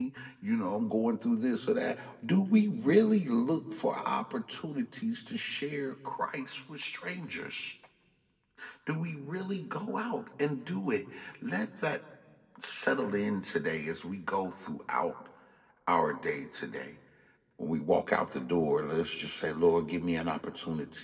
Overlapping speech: No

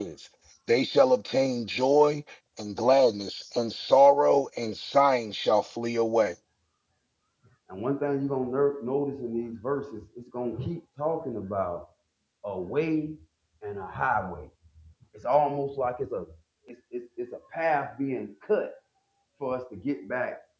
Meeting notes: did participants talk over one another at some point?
No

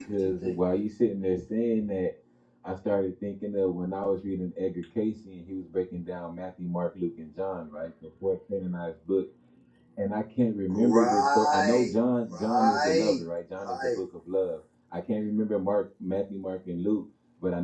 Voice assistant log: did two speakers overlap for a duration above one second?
Yes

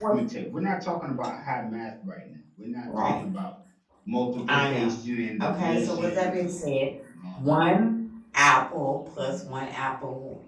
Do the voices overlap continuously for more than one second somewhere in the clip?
Yes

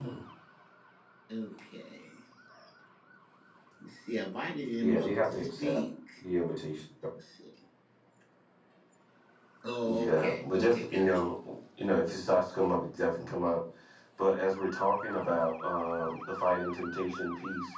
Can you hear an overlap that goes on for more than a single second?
Yes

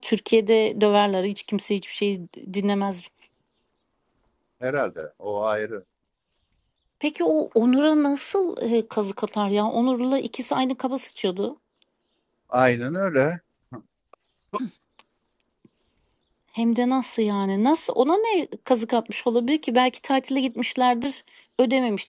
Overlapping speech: No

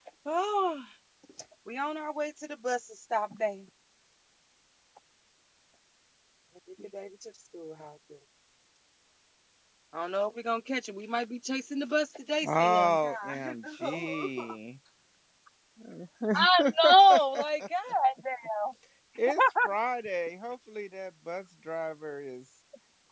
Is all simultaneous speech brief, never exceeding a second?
No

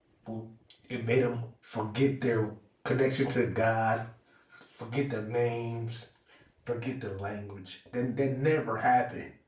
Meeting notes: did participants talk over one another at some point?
No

